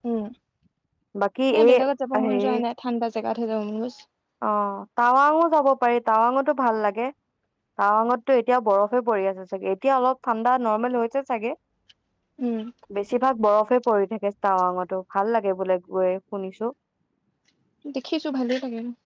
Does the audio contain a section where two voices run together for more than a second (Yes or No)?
No